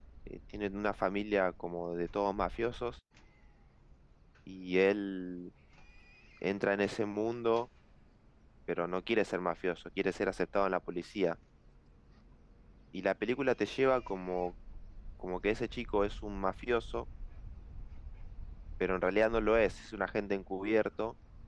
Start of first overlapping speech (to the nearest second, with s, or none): none